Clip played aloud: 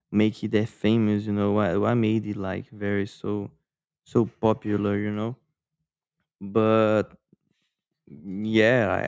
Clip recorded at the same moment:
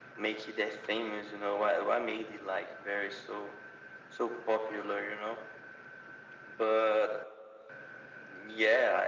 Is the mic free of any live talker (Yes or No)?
Yes